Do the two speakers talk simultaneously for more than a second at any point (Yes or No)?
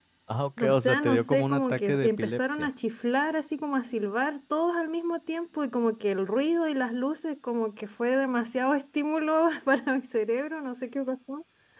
Yes